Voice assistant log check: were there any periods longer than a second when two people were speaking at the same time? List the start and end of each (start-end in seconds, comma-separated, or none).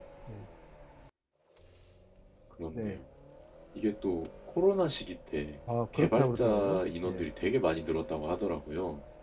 6.0-7.2